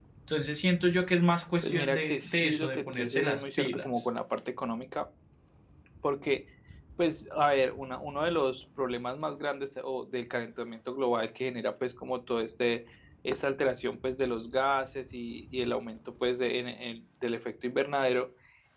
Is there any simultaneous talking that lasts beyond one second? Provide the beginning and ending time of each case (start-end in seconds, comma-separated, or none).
1.6-4.1